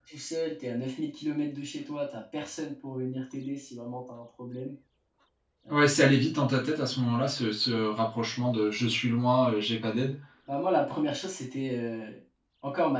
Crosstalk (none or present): none